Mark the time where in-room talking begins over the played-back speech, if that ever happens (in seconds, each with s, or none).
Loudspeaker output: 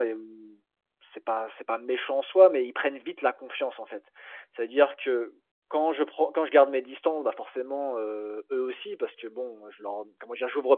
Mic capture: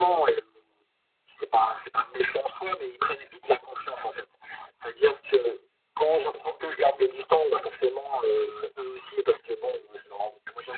none